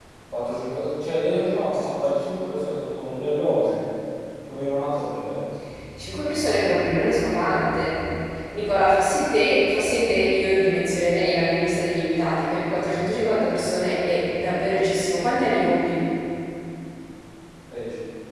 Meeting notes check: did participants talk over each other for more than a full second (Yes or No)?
No